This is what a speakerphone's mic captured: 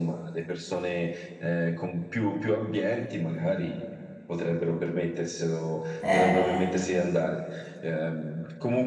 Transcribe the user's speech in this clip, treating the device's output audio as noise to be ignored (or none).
eh,